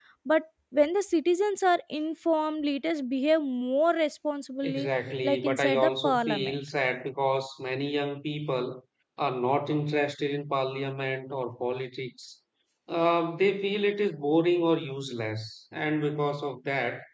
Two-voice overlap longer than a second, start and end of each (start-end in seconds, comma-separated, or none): 5.2-6.5